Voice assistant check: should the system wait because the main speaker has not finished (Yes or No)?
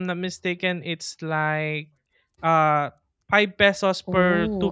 No